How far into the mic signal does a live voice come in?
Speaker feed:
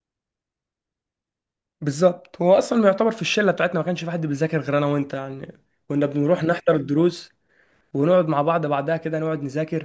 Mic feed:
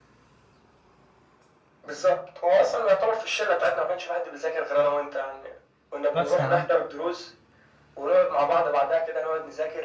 6 s

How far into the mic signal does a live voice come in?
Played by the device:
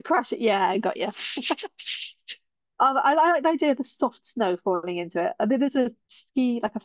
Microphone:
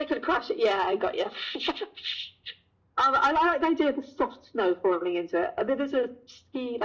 none

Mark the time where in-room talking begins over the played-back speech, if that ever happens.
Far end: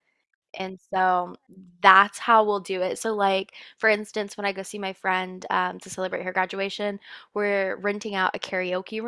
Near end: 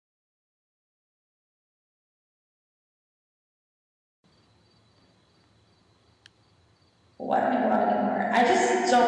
7 s

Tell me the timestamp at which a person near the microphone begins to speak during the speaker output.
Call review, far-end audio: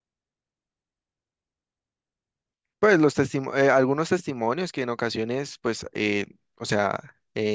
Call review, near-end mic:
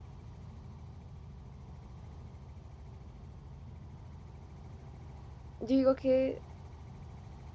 6 s

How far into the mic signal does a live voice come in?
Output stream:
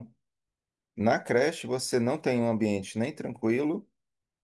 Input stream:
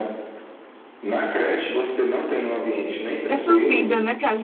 3 s

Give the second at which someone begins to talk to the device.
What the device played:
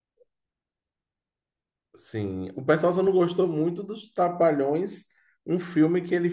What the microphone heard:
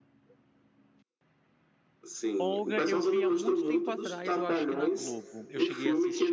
2 s

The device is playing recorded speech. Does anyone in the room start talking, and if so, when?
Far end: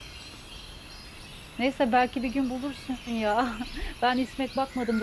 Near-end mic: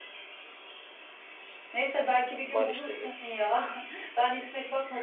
2 s

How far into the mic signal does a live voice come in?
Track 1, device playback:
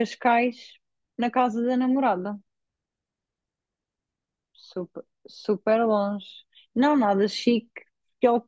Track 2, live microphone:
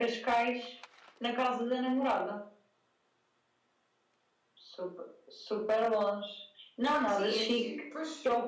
7 s

